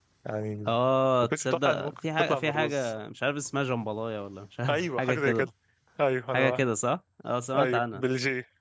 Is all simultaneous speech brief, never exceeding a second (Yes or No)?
No